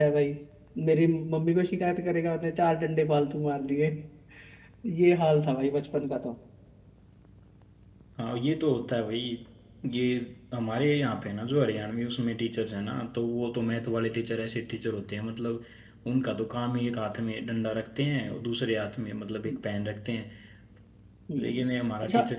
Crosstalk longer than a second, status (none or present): none